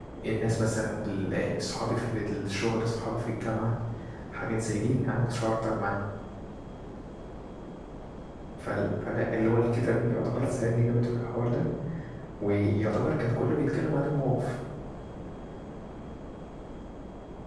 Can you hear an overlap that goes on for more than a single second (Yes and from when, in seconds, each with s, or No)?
Yes, from 9.4 s